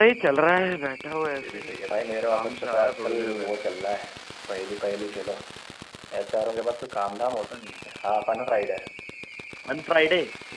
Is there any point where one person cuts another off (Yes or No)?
Yes